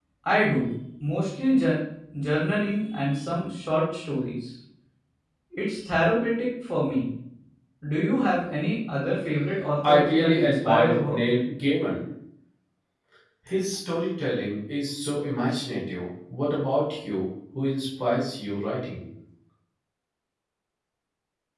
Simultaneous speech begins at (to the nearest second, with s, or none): 10 s